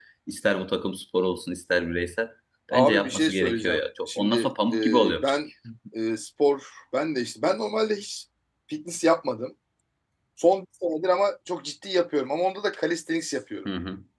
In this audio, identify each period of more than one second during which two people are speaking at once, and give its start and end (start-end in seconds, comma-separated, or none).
2.7-5.4